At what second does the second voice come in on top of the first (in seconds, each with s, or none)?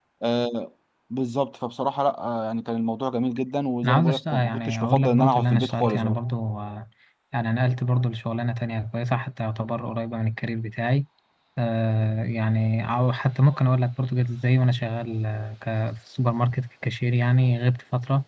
3.8 s